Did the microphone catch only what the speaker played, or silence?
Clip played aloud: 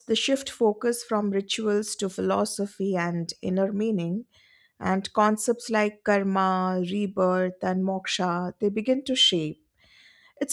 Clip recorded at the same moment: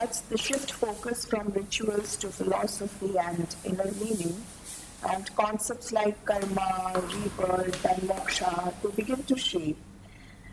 Yes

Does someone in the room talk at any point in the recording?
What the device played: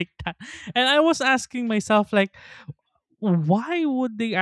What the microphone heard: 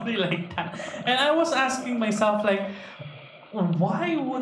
No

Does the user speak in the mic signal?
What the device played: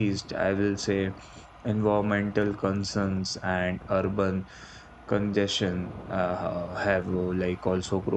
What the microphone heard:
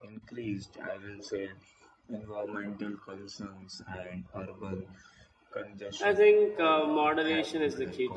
Yes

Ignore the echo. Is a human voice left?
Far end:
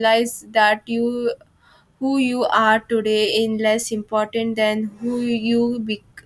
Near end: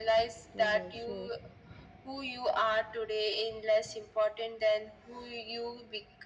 Yes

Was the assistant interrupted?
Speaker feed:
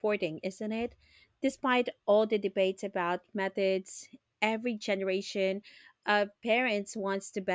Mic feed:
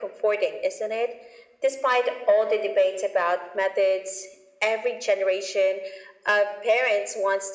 No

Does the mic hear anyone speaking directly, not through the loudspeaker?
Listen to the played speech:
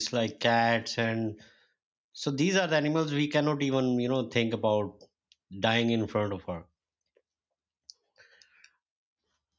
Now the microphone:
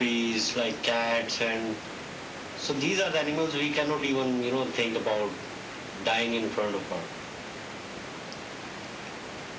No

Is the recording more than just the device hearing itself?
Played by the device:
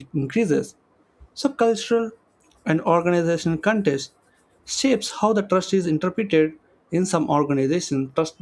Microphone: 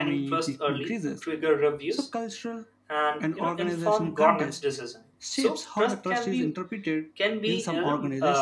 Yes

